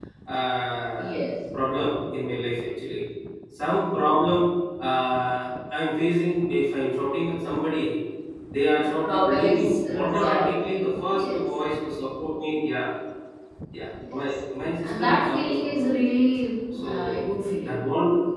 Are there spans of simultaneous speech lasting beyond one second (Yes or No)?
Yes